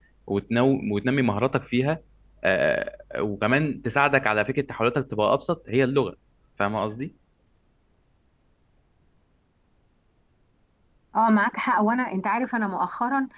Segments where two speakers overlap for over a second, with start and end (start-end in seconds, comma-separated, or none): none